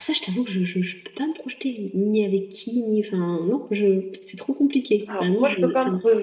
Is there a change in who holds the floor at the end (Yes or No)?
Yes